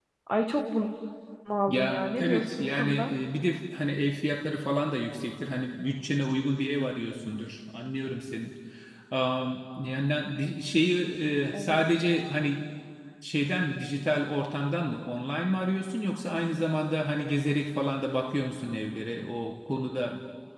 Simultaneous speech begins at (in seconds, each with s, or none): 1.7 s